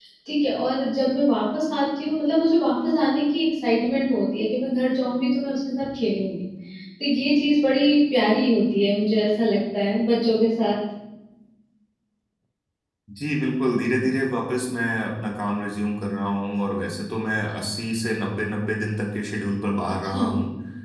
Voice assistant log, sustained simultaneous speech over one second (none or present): none